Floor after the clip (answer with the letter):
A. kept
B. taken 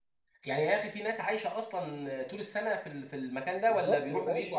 B